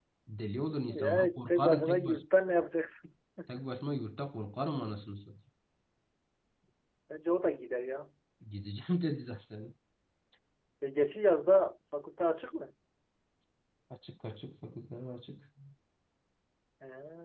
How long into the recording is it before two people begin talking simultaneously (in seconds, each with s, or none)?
0.9 s